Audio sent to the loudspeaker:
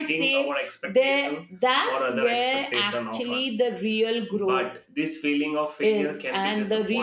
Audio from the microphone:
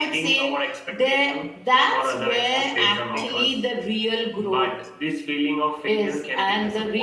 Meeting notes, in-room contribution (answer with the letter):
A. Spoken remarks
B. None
A